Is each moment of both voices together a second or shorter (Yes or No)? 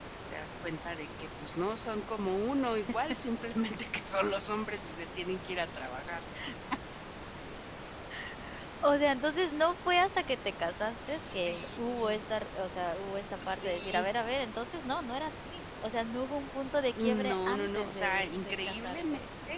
No